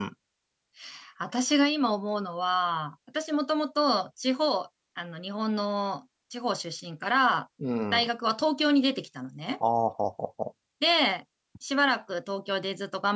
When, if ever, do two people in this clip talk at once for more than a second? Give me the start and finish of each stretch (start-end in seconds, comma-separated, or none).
none